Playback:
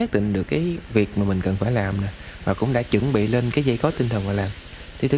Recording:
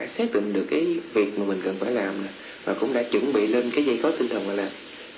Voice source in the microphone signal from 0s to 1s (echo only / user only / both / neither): echo only